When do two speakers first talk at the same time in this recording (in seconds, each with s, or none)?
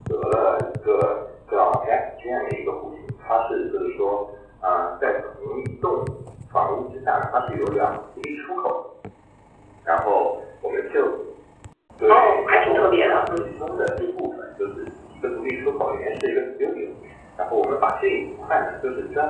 12.1 s